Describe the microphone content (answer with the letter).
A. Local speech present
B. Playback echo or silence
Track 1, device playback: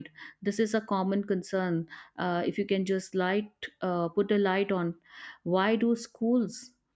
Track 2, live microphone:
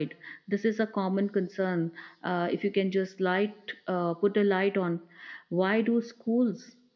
B